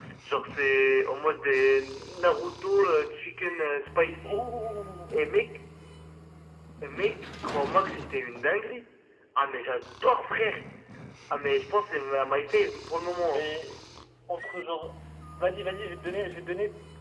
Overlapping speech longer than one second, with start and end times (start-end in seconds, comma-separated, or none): none